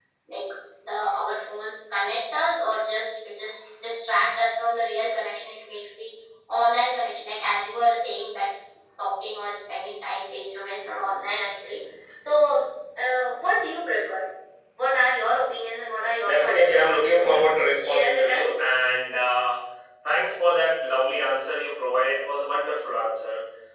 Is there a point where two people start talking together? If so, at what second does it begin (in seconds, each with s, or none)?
16.2 s